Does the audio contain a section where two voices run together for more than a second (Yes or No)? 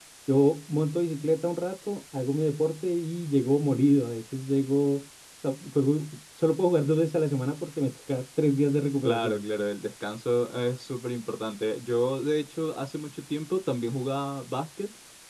No